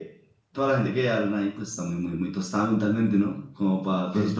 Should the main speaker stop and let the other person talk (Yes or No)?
Yes